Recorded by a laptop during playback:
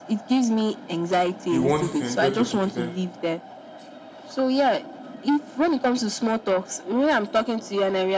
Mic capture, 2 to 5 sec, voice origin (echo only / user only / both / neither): both